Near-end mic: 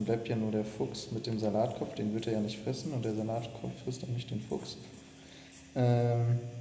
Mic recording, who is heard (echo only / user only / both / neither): user only